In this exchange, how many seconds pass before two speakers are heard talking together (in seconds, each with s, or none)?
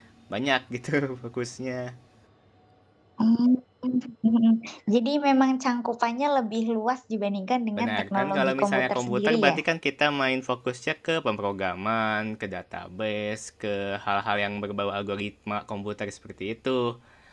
7.8 s